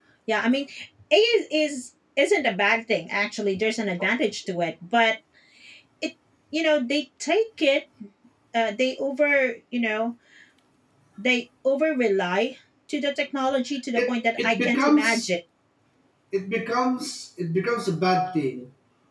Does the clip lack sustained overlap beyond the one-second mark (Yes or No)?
No